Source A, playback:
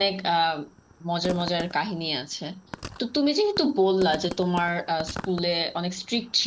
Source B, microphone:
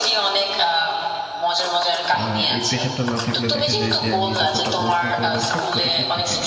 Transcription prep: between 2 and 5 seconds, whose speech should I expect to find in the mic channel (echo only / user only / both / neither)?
both